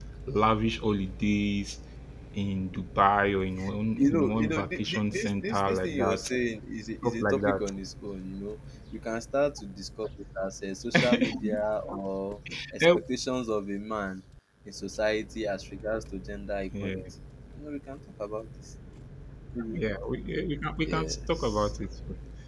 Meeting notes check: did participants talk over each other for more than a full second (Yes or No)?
Yes